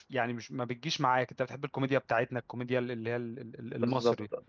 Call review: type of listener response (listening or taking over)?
taking over